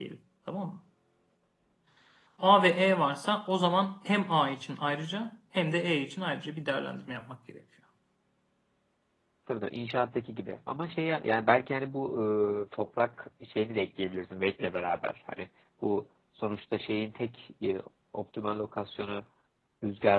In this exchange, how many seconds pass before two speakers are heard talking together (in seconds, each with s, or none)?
none